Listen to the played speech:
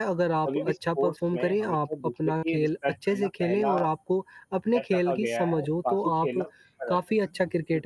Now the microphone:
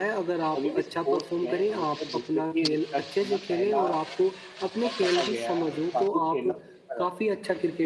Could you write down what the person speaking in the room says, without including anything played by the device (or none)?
none